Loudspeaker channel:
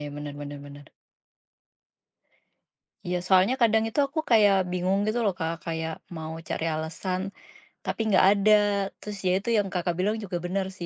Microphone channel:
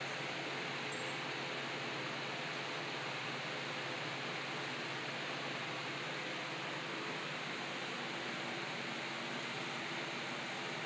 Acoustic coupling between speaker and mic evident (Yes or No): No